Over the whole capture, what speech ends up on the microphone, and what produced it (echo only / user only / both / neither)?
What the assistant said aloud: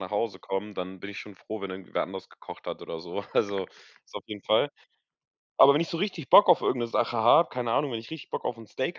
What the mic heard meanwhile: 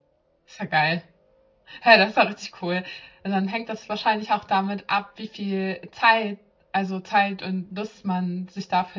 user only